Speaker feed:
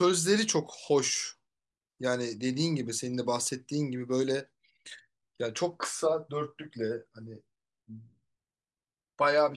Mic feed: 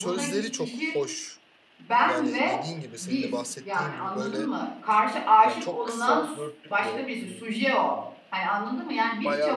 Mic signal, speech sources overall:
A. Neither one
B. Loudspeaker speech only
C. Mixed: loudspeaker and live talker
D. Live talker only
C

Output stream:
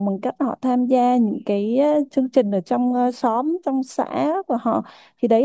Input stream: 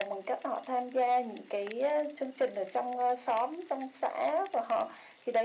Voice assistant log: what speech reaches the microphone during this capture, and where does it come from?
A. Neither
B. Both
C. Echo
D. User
C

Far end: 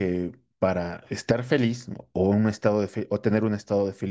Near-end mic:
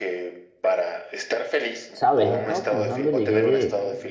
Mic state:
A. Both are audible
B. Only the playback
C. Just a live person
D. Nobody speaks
A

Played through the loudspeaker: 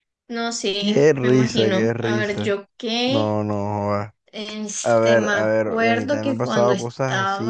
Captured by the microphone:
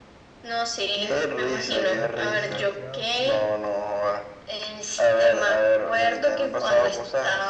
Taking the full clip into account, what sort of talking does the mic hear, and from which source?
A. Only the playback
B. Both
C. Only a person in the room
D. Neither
B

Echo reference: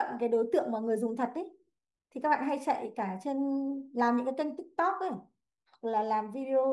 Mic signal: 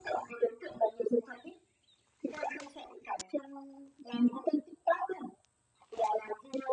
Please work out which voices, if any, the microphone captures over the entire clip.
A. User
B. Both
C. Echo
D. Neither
C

